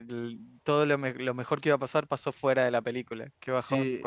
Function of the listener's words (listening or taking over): taking over